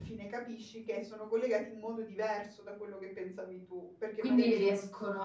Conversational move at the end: taking over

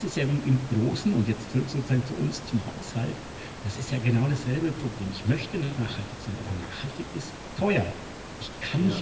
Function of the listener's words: listening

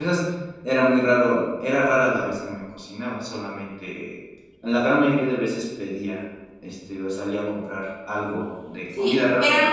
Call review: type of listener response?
taking over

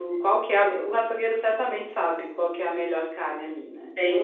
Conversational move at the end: taking over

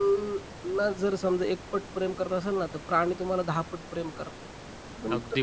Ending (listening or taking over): taking over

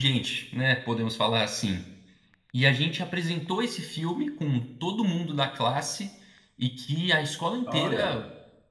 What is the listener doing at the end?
listening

